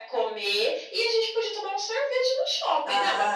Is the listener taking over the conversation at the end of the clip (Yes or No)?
Yes